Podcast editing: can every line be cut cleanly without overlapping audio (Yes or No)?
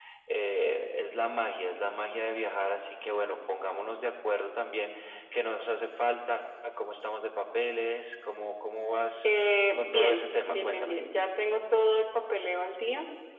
No